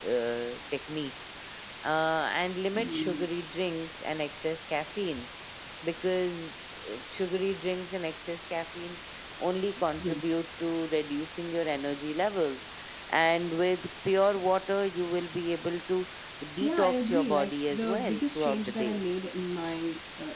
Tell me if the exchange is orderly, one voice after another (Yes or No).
No